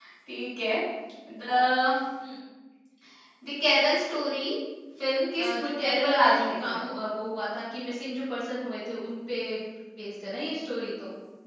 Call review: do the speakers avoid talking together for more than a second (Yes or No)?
No